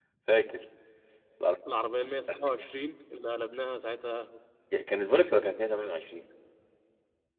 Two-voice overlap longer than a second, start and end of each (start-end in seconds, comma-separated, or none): none